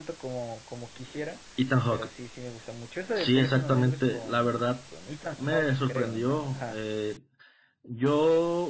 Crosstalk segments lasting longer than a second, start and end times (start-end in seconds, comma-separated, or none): 3.1-4.6, 5.4-6.8